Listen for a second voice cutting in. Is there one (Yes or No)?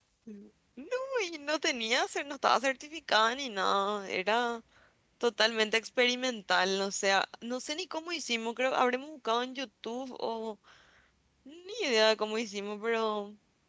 No